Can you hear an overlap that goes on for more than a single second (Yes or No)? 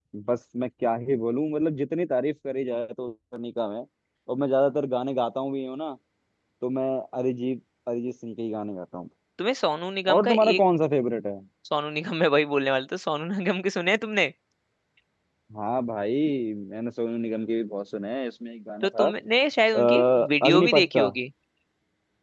Yes